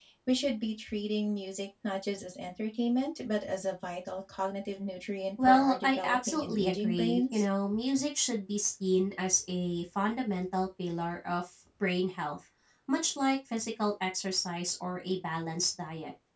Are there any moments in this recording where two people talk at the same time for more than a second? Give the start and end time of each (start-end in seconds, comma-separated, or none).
5.5-7.4